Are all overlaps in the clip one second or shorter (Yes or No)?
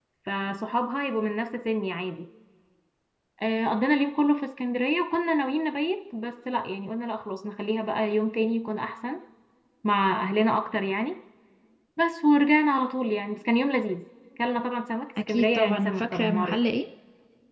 No